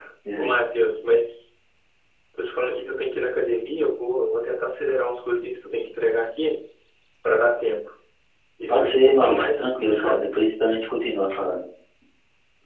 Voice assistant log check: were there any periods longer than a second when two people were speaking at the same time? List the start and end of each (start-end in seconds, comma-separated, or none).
8.7-10.3